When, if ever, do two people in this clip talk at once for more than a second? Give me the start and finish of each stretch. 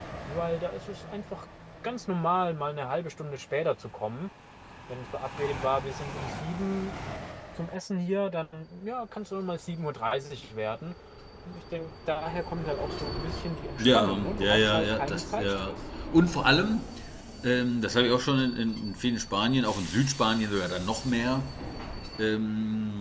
13.8-15.8

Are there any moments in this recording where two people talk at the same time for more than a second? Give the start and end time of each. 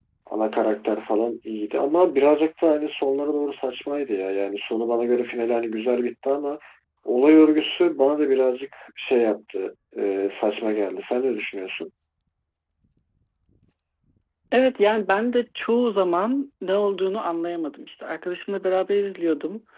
none

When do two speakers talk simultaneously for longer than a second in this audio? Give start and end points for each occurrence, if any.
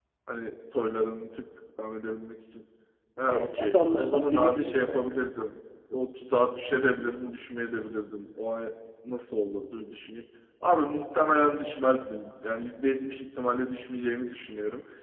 3.2-5.2

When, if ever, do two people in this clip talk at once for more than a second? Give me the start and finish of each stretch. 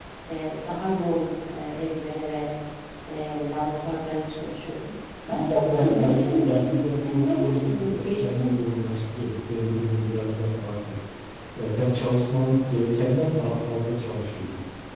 5.3-8.6

